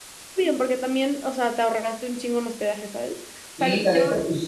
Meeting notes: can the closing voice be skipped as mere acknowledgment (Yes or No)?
No